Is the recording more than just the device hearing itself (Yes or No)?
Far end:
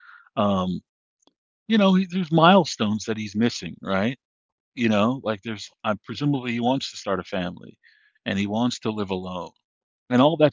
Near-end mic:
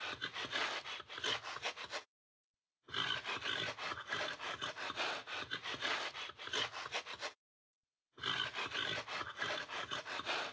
No